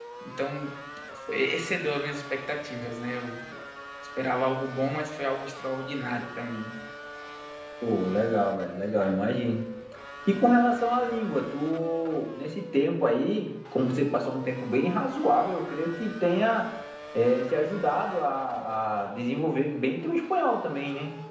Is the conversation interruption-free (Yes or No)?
Yes